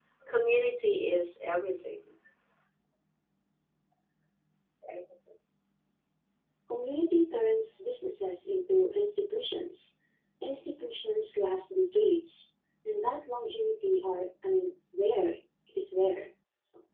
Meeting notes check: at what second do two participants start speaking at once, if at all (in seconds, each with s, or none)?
none